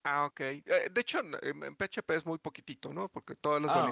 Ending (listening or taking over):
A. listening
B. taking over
A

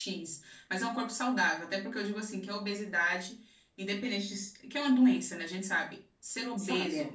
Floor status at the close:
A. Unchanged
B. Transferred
A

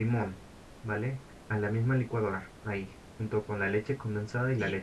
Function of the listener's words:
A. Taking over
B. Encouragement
A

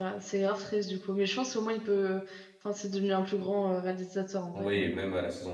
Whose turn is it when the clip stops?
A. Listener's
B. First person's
A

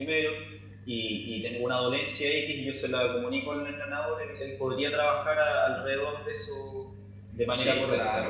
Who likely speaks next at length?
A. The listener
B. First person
A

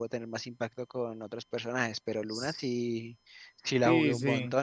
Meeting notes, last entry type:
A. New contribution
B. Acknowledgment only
A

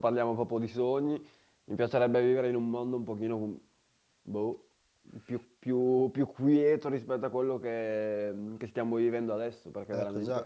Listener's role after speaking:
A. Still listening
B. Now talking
B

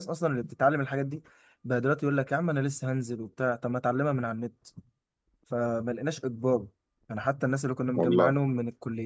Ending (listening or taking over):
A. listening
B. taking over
A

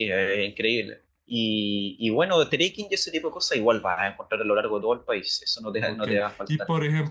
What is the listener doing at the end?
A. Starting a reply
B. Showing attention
A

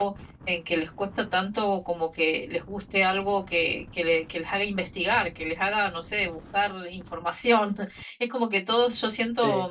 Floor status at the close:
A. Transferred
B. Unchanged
B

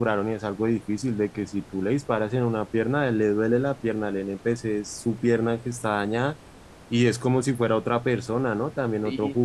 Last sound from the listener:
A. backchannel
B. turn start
B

